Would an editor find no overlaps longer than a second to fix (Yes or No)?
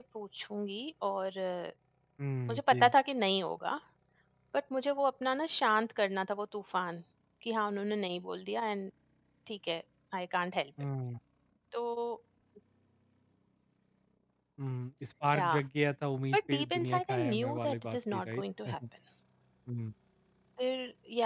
No